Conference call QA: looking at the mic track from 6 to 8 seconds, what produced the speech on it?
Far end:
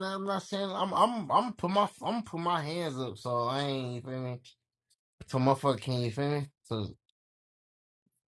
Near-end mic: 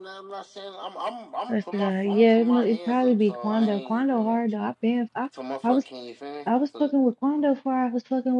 both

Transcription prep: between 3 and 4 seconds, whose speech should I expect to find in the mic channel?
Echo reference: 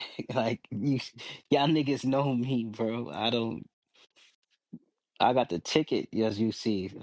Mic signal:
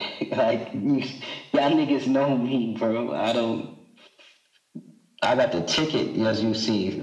echo only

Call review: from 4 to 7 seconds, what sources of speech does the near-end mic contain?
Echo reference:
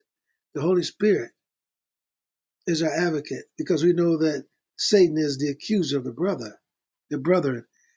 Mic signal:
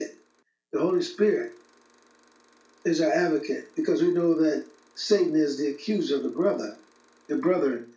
echo only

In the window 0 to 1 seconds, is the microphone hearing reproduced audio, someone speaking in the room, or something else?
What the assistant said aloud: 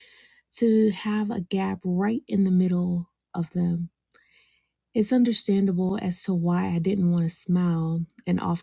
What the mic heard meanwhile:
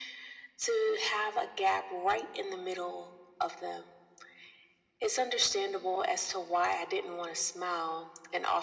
echo only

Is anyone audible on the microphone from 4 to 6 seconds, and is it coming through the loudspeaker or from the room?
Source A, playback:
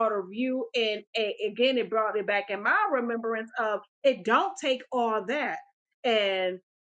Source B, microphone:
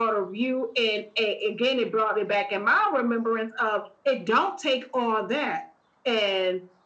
echo only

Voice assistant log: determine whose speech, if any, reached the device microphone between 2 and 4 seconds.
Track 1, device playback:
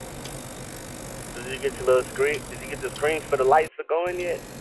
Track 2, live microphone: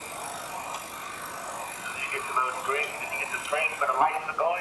echo only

